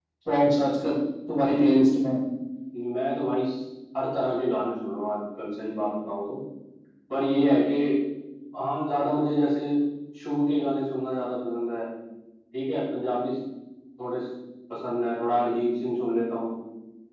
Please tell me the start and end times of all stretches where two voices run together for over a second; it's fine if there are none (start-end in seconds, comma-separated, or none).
none